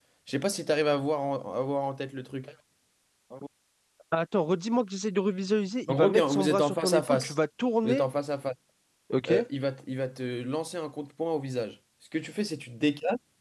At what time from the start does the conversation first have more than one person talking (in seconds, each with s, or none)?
5.9 s